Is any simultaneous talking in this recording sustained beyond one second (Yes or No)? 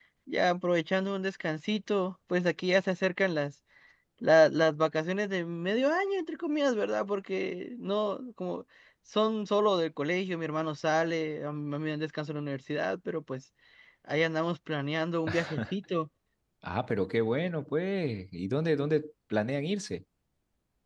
No